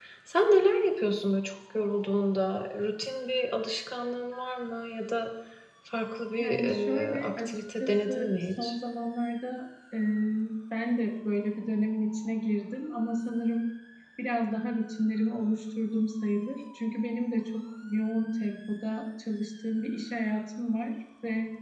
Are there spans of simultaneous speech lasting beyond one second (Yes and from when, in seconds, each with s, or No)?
Yes, from 6.4 s